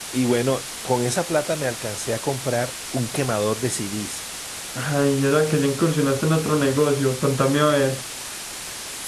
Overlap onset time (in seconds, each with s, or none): none